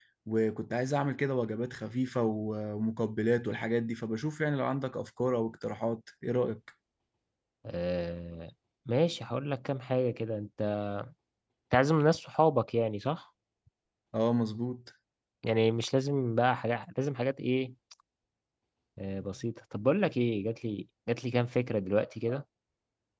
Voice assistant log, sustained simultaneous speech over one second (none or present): none